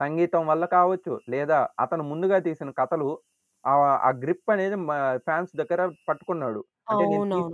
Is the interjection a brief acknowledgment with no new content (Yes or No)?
No